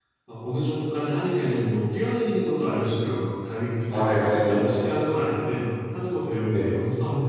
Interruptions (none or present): present